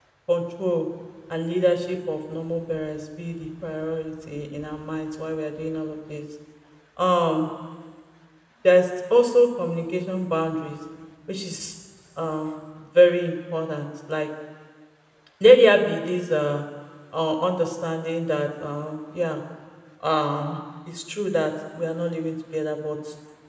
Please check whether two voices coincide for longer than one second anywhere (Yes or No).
No